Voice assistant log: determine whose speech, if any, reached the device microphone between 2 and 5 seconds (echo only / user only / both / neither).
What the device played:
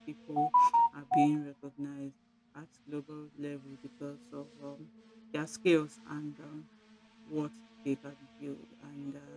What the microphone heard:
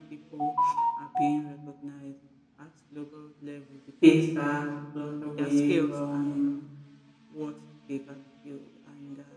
both